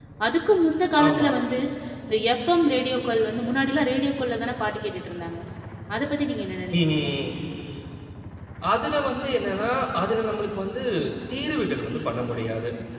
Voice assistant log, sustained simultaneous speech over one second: none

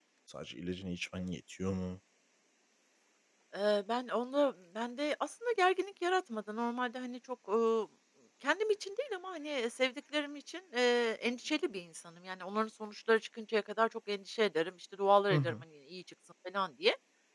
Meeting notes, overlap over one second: none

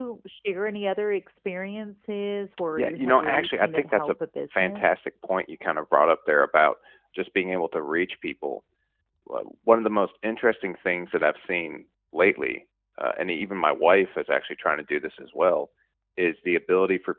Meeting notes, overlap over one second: present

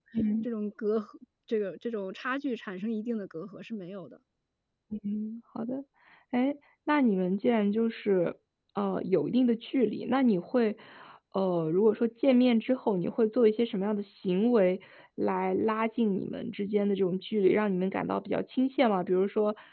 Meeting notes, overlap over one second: none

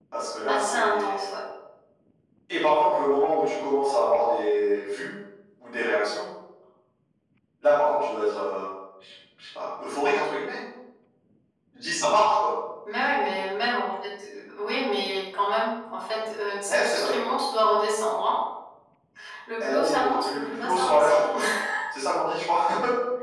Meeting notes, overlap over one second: present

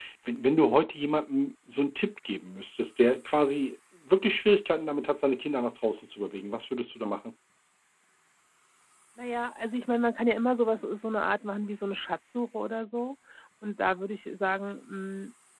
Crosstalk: none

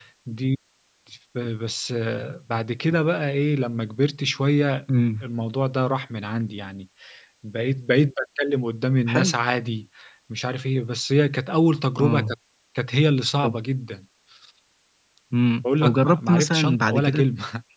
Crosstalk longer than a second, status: present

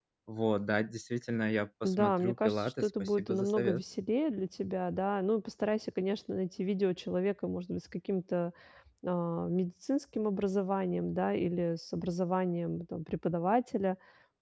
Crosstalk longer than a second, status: present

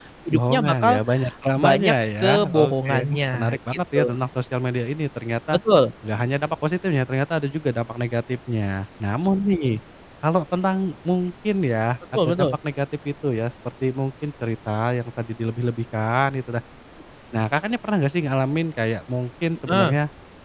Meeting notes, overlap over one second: present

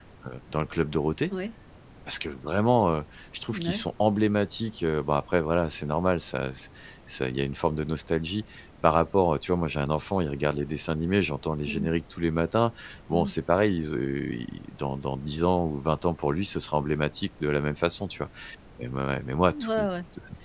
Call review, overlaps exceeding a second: none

